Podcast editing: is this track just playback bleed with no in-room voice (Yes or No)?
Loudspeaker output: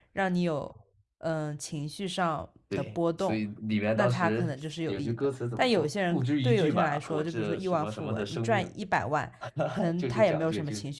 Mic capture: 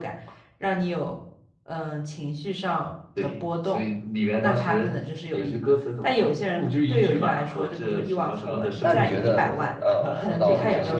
No